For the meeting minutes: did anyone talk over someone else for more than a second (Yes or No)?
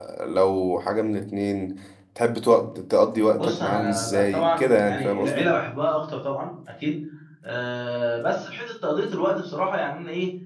Yes